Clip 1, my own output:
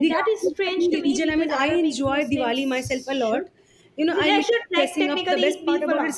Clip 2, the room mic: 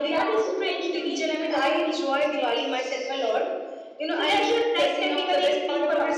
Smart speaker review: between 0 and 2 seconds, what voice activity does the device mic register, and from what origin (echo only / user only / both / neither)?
echo only